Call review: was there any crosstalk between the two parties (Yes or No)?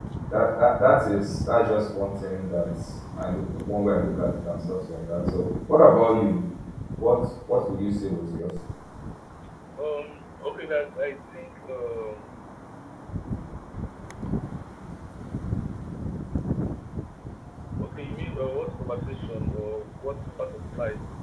No